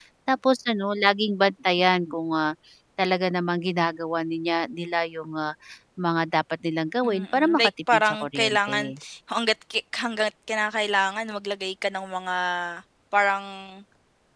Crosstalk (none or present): present